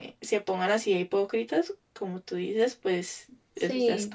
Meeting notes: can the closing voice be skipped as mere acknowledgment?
No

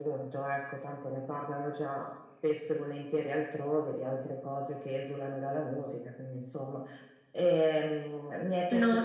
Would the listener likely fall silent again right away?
Yes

